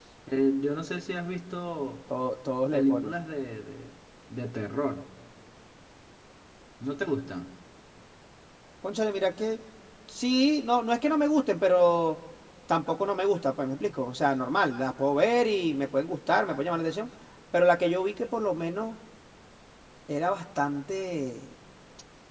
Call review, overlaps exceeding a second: none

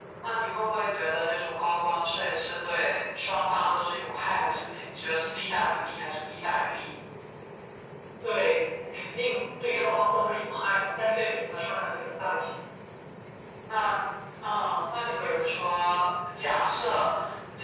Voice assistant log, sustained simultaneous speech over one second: none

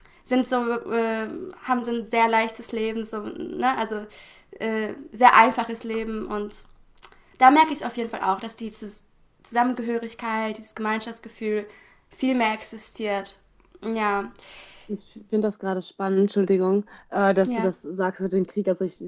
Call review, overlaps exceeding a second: none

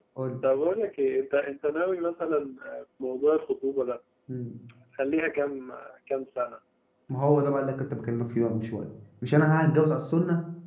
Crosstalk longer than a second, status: none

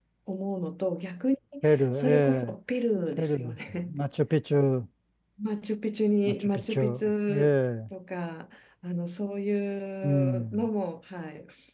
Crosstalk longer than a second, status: present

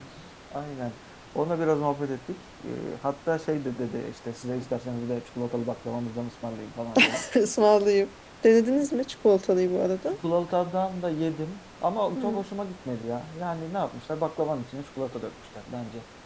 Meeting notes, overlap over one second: none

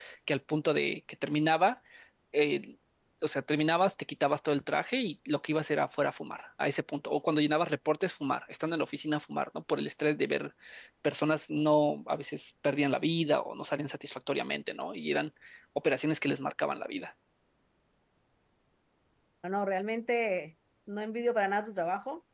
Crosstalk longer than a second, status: none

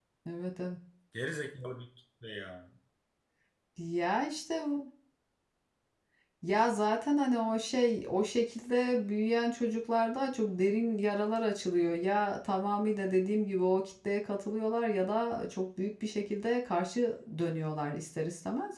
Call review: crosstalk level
none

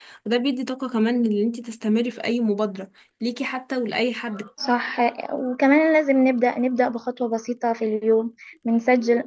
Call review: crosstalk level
none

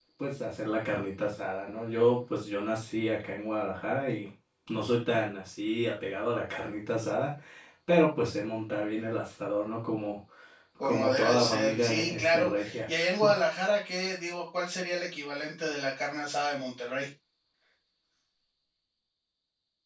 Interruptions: present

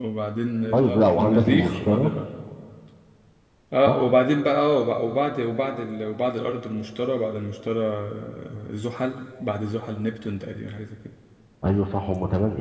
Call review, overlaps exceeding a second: present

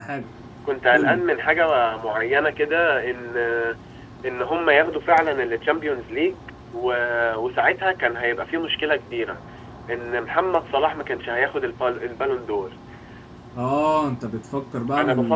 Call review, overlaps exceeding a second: none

